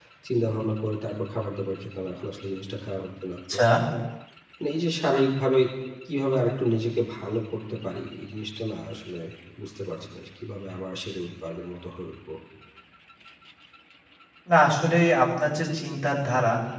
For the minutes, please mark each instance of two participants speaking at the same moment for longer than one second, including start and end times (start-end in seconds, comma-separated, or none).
none